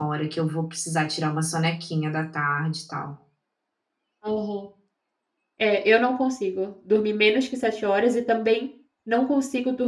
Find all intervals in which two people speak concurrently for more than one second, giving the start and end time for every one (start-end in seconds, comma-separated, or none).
none